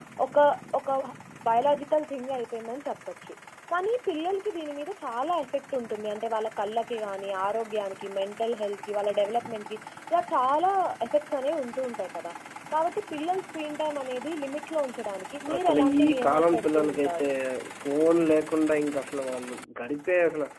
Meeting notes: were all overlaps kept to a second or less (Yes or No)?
No